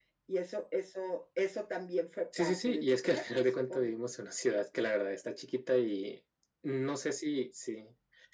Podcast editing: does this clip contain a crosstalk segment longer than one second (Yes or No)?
Yes